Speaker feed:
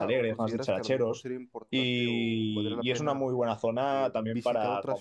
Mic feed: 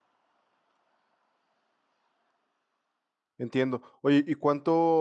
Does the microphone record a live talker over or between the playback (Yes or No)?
Yes